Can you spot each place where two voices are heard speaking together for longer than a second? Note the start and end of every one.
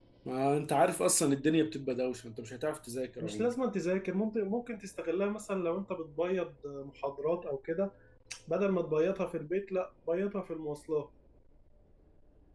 none

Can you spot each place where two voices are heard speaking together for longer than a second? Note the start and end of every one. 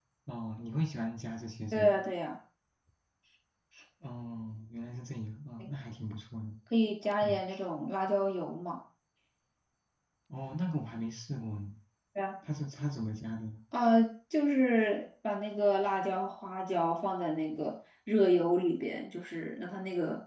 none

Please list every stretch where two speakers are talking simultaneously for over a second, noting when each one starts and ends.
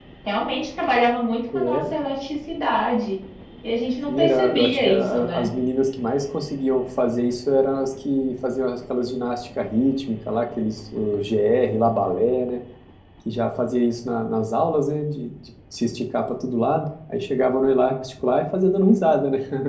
4.1-5.5

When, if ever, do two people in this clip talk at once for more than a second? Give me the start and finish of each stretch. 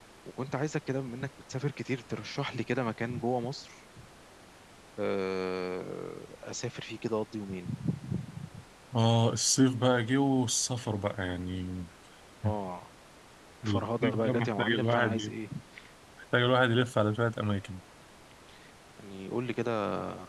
13.7-15.3

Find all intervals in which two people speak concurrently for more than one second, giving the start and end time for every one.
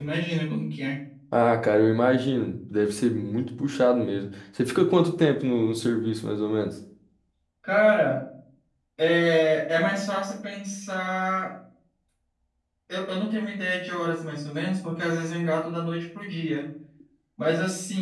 none

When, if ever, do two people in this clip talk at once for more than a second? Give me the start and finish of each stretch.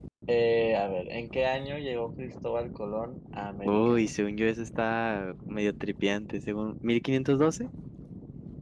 none

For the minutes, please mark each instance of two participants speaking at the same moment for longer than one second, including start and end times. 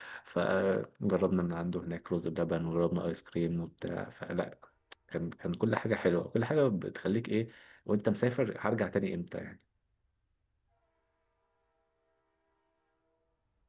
none

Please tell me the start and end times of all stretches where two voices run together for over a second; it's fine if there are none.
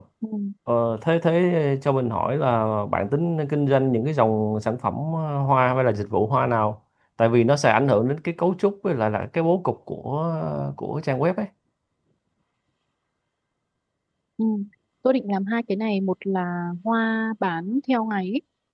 none

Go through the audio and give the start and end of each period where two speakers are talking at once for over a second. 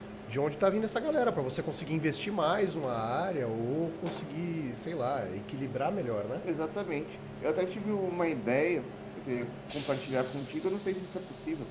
none

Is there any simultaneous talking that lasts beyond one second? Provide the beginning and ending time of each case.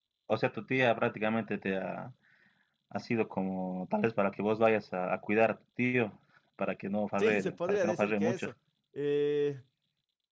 7.2-8.5

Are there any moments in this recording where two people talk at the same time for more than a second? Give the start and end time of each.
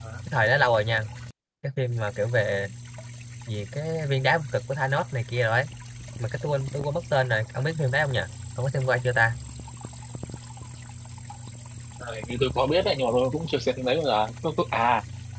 none

